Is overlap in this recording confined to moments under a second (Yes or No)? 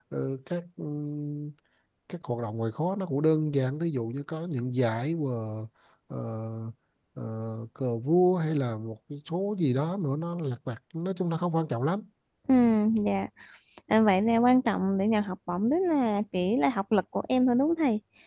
Yes